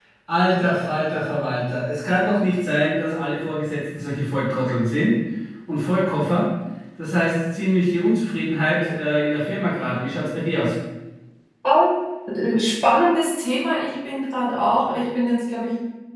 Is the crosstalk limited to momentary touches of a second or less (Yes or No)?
Yes